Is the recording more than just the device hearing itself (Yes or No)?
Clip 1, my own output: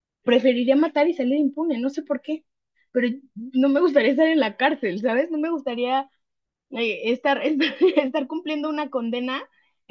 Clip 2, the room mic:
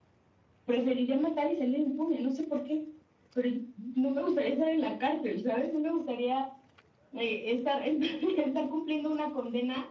No